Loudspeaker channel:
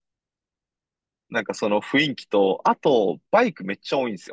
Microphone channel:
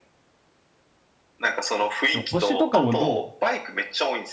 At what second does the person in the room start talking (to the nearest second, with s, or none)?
2 s